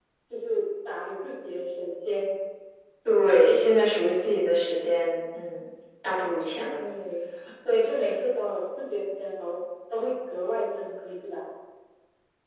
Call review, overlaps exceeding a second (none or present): none